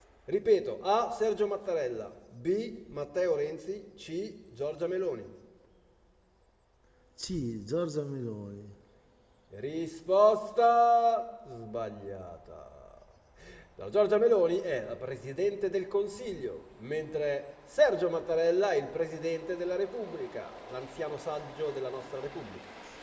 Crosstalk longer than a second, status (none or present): none